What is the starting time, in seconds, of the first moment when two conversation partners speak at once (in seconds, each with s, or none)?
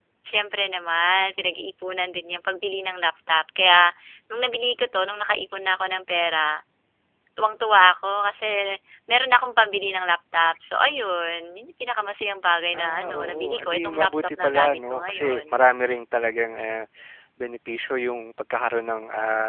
12.7 s